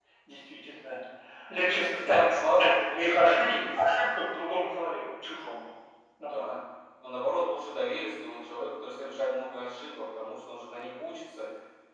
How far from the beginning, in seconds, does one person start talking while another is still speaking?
2.1 s

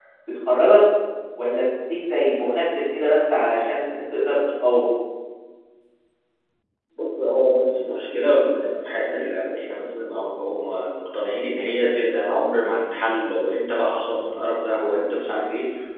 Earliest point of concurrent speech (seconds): none

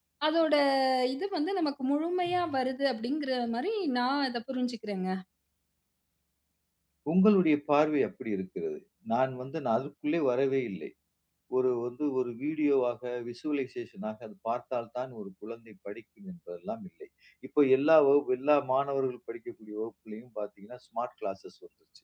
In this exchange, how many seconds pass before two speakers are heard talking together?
none

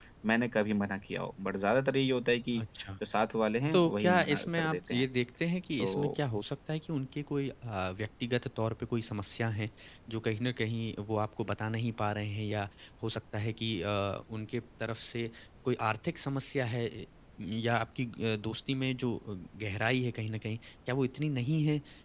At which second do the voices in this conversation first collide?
3.7 s

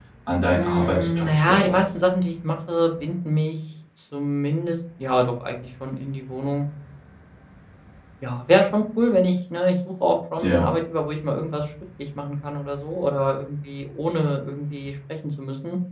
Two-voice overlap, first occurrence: 0.5 s

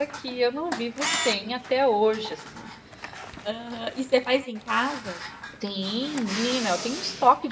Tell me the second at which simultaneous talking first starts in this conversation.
none

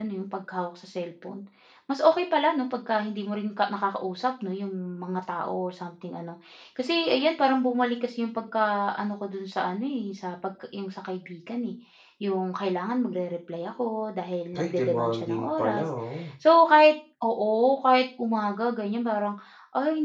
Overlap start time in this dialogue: 14.5 s

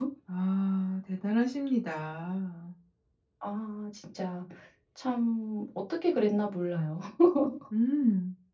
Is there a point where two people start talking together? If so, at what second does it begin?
none

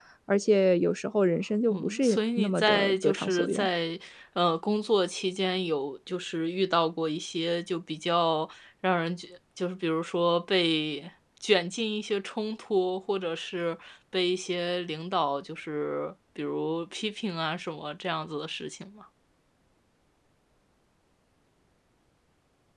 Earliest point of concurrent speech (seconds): 1.7 s

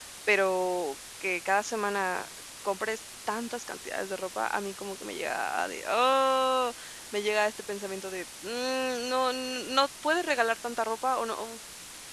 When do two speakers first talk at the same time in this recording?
none

